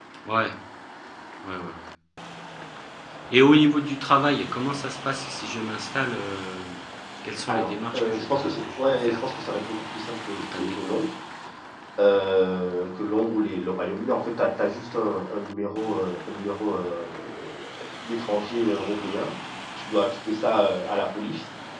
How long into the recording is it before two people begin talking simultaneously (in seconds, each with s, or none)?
7.5 s